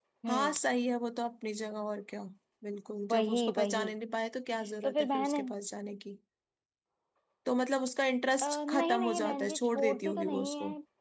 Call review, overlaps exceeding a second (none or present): present